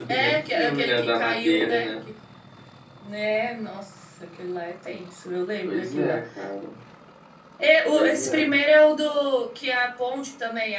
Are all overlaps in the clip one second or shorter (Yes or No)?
No